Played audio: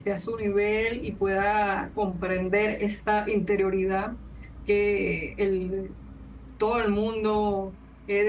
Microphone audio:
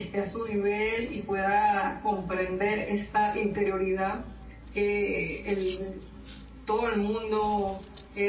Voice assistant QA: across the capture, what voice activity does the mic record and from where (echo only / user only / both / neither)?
echo only